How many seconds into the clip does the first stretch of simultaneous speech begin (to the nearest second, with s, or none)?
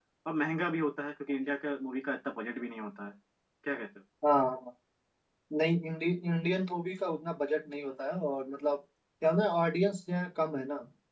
none